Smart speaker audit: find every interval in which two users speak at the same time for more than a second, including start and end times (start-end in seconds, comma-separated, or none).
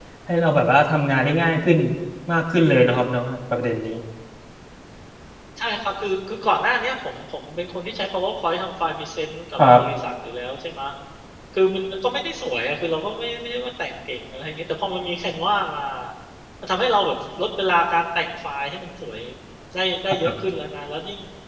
none